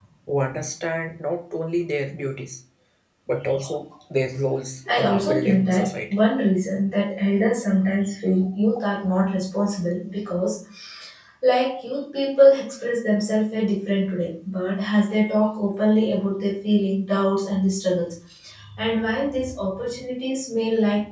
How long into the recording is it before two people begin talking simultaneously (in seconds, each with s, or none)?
4.9 s